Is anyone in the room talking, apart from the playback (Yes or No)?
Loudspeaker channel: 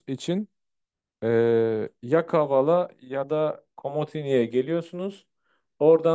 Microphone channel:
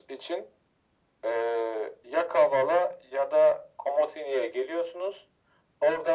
No